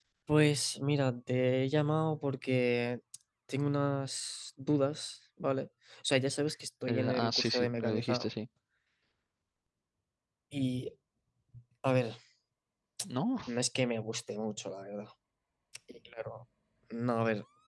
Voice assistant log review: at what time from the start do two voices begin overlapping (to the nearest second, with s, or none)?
7 s